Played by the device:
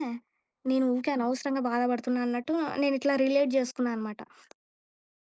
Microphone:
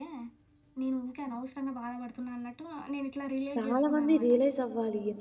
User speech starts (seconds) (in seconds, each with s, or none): 3.6 s